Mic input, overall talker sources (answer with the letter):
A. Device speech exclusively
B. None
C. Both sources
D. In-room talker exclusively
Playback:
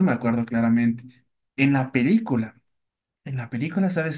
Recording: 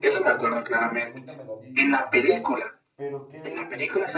C